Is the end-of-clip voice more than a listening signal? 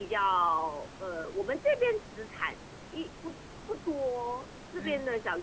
No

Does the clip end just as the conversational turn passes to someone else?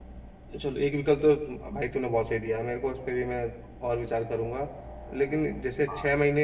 No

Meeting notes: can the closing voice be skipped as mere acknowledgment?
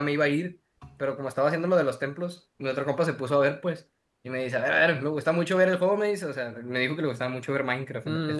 No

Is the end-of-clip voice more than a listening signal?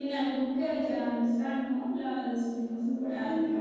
Yes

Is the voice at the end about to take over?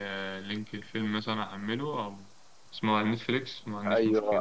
Yes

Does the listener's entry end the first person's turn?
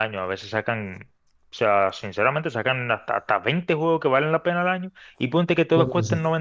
No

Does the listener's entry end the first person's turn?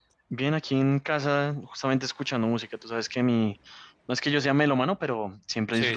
No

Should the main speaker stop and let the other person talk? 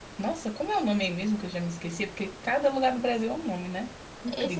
Yes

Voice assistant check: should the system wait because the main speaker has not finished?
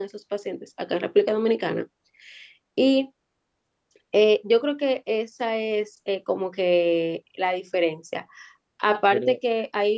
Yes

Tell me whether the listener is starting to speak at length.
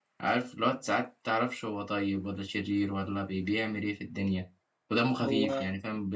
No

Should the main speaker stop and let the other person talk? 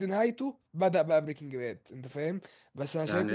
Yes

